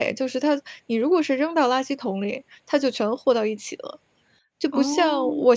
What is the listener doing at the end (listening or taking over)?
listening